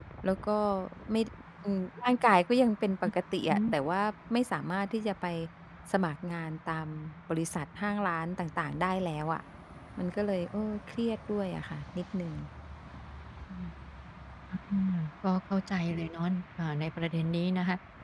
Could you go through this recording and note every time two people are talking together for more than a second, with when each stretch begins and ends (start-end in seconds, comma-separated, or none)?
none